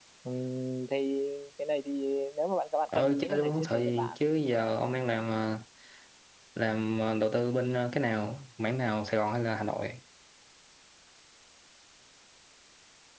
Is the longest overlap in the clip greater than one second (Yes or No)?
Yes